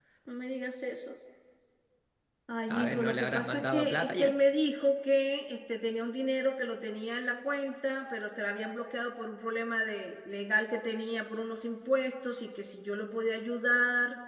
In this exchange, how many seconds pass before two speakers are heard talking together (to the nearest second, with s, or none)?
3 s